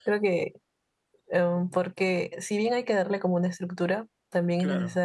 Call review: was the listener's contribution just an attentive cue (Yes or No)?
Yes